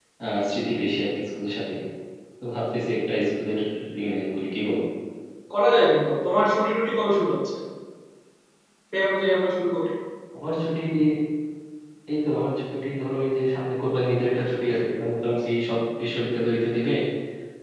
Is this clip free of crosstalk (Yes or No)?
Yes